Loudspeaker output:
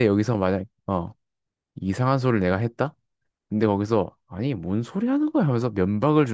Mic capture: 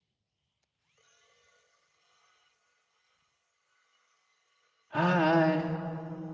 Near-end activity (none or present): present